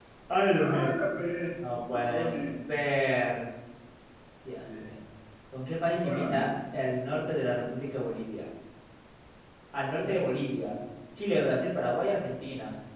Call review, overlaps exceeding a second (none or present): none